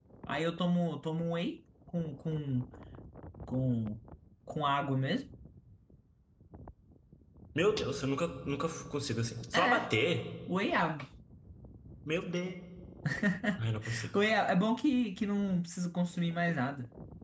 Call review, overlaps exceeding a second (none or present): none